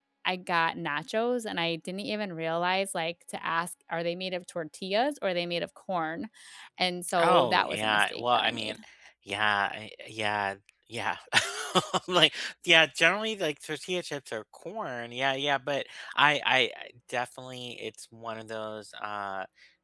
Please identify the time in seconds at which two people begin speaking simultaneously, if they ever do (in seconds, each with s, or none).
7.2 s